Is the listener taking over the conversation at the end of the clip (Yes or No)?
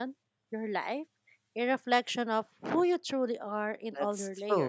Yes